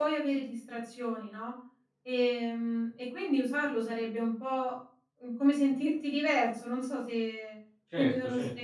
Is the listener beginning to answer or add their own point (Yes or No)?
Yes